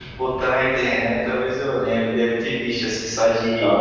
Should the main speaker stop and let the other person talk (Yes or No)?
Yes